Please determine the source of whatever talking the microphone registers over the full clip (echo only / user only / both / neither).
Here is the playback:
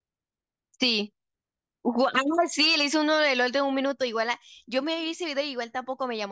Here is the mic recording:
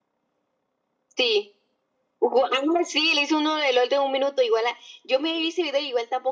echo only